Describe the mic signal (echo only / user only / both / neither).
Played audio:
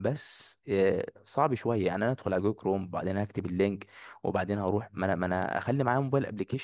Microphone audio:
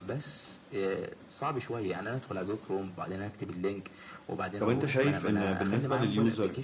both